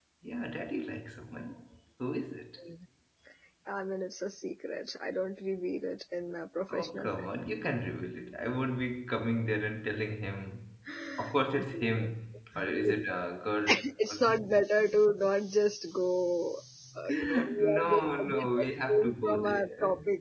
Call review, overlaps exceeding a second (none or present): present